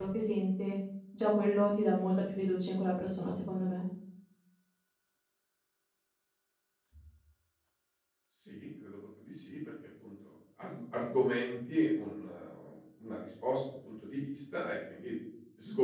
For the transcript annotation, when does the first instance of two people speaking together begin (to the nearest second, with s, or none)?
none